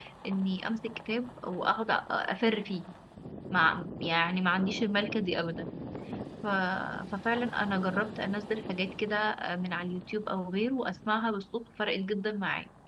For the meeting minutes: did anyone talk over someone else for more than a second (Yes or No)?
No